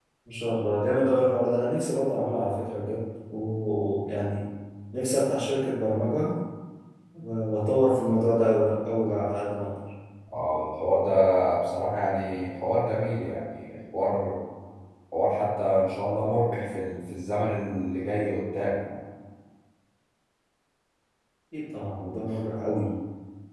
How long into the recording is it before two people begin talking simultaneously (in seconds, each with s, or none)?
none